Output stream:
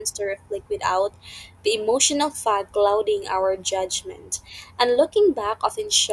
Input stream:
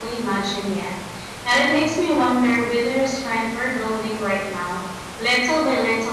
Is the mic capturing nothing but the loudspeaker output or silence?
No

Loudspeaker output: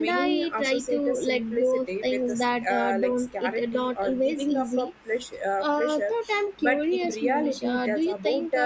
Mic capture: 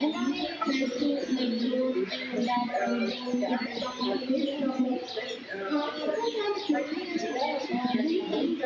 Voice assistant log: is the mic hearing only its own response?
Yes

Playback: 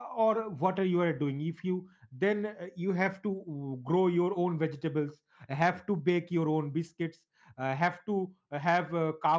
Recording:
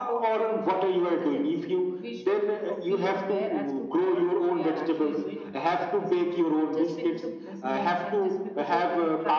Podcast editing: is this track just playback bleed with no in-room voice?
No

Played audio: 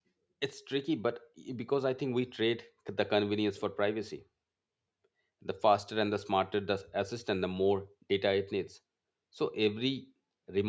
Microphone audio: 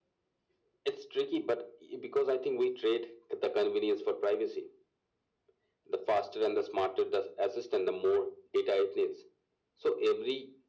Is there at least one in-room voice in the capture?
No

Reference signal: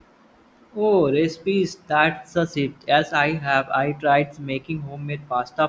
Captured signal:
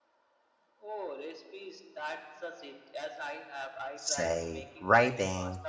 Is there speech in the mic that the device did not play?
Yes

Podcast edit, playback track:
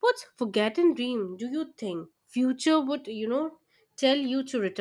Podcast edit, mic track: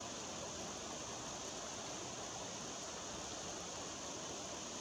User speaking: No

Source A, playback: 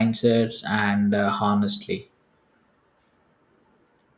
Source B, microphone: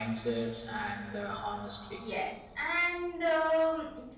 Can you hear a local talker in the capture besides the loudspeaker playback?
Yes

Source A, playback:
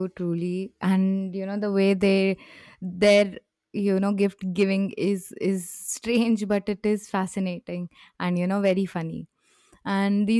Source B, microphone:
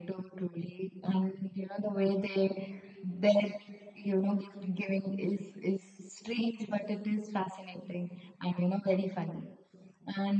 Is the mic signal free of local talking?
Yes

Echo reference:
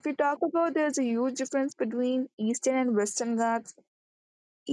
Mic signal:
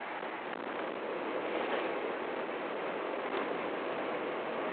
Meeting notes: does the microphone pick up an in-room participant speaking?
No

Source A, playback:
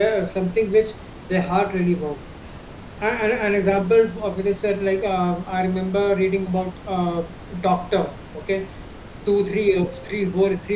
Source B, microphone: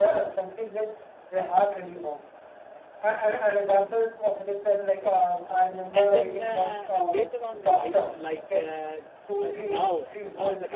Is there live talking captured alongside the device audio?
Yes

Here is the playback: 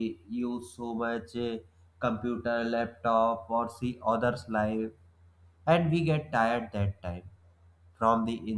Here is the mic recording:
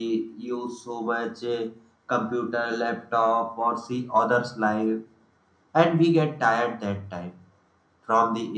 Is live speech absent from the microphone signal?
Yes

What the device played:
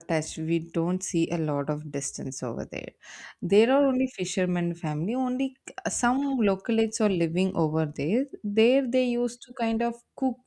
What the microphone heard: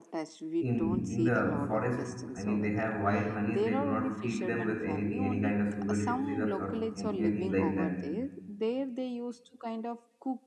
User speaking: Yes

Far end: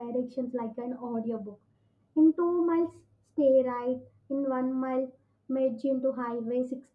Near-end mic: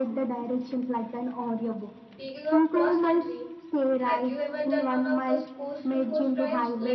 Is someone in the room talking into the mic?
Yes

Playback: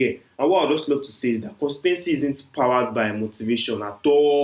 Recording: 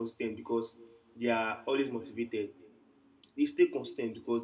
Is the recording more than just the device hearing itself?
Yes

